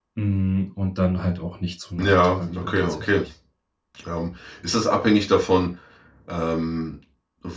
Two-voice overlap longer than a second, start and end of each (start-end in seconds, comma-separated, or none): 2.0-3.2